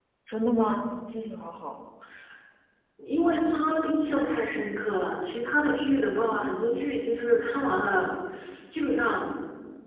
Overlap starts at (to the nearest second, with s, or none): none